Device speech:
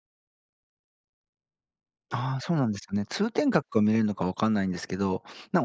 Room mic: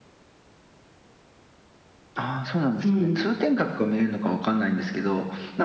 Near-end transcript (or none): うん、